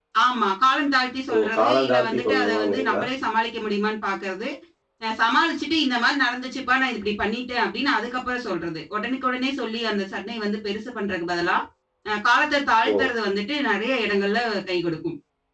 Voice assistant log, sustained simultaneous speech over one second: present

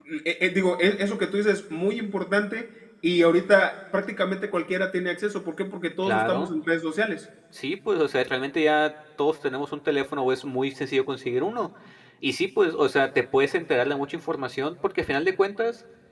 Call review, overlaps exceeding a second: none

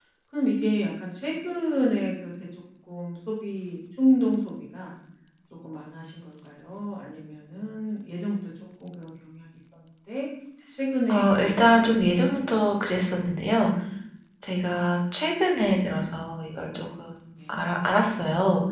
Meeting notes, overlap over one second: present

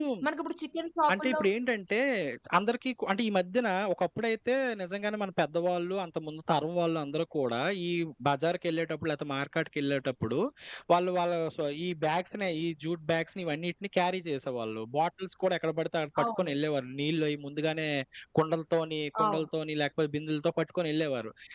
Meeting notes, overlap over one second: none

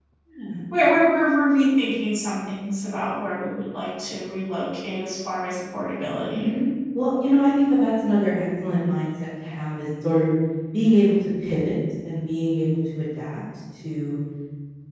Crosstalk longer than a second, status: none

